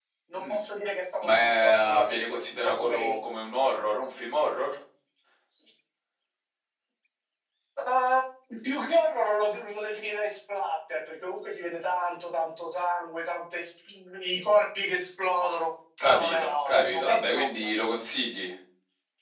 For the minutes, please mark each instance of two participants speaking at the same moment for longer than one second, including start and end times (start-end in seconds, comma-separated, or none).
1.2-3.2, 16.0-17.7